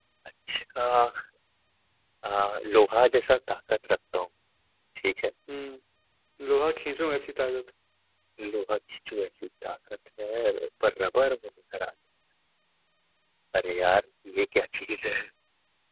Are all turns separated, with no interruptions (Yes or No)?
Yes